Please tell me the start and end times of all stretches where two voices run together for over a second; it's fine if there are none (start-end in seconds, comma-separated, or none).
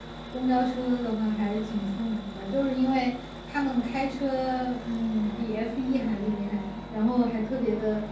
none